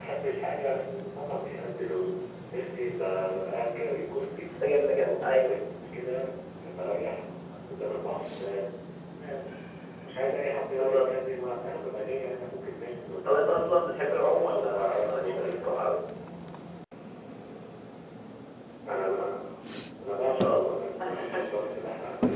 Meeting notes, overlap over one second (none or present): present